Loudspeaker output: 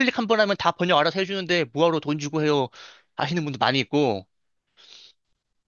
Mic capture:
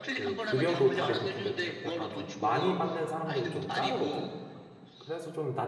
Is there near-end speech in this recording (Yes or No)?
Yes